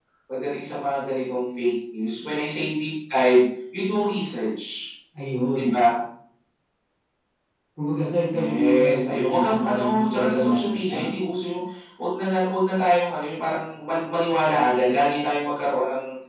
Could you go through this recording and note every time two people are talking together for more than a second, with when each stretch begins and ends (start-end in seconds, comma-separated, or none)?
8.3-11.1